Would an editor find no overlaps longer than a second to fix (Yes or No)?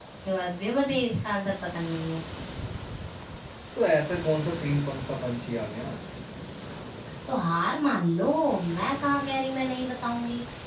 Yes